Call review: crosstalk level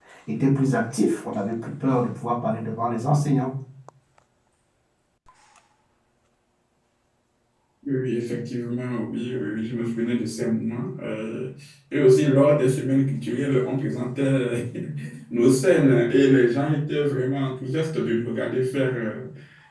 none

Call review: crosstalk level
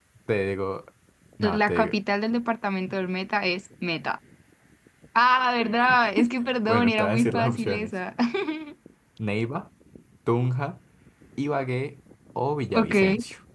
present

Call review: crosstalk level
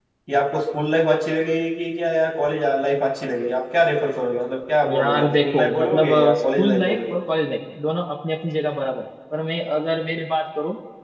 present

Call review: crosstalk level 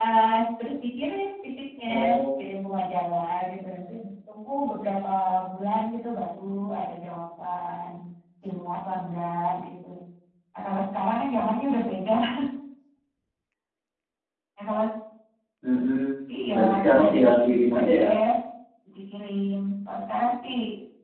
present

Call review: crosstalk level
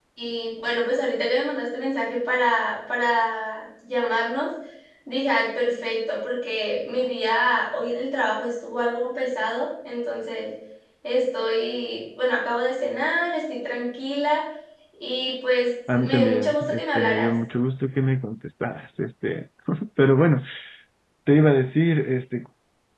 present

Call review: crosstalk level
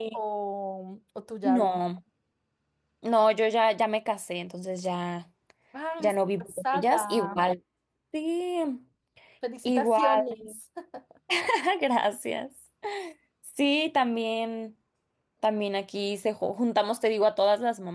present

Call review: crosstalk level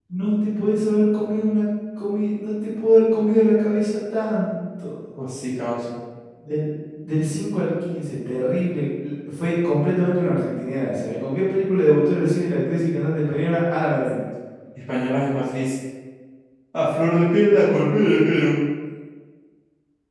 none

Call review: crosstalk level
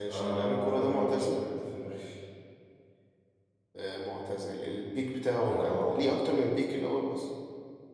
present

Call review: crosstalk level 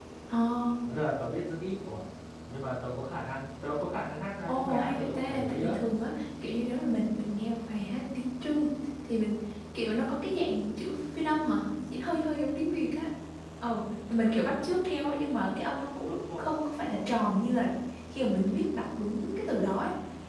present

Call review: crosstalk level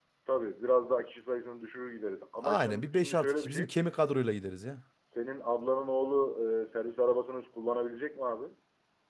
present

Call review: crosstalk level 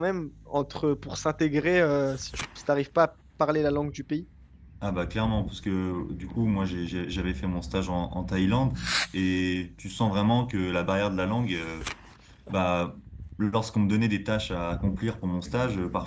none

